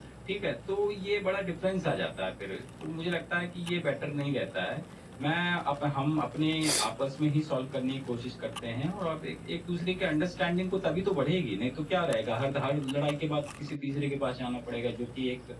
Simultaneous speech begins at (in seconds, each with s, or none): none